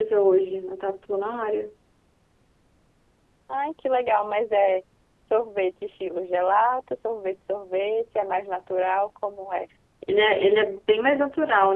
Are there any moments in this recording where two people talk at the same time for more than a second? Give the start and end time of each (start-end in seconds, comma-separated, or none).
none